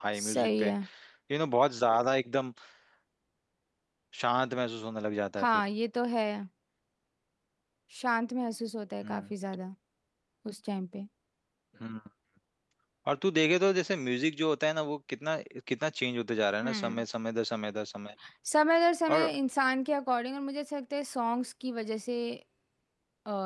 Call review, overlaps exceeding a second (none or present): none